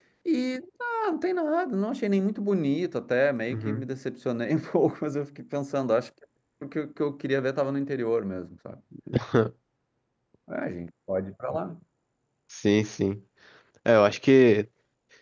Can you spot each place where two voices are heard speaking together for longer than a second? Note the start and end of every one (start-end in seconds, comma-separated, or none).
none